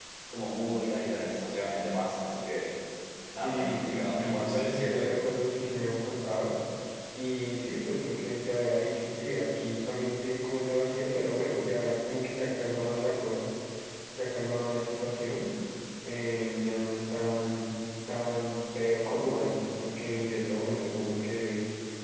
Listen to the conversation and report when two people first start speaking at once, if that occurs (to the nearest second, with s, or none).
3 s